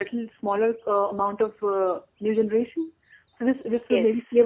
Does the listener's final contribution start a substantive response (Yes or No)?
No